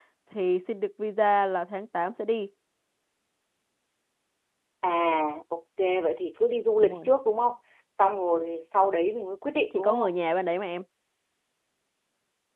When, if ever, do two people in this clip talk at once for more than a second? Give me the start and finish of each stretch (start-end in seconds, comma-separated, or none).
none